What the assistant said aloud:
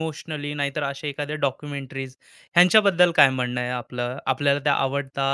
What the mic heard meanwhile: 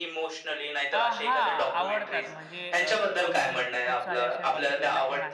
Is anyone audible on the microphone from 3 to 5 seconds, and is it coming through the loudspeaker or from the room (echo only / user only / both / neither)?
both